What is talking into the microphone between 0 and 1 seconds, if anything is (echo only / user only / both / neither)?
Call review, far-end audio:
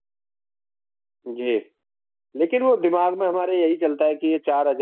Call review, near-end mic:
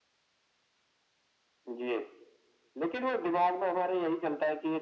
neither